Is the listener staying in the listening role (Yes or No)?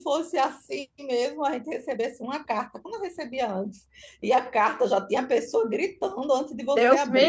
No